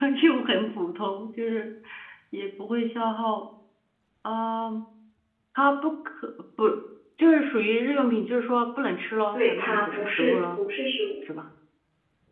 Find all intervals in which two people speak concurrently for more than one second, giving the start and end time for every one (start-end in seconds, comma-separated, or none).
9.3-10.6